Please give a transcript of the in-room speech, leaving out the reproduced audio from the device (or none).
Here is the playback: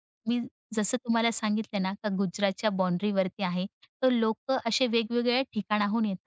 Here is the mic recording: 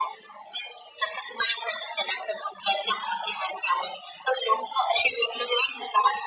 none